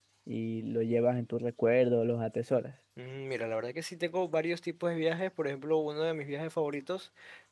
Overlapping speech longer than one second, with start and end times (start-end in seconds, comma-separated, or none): none